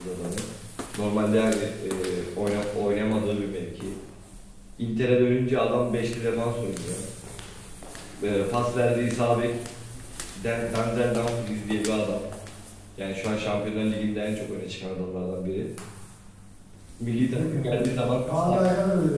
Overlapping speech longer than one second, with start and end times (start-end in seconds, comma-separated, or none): 17.2-18.6